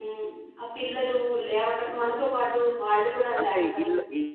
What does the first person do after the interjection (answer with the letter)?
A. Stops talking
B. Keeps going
A